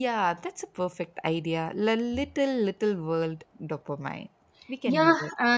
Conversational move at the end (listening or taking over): taking over